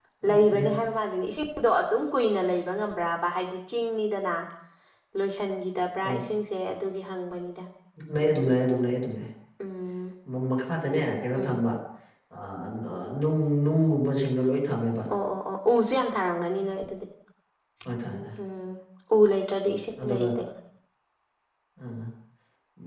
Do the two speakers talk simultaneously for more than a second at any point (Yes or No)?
No